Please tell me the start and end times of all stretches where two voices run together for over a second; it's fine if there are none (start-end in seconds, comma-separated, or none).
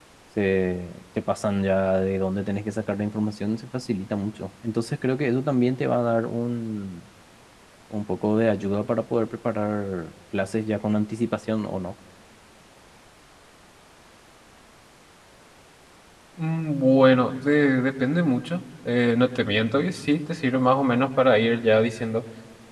none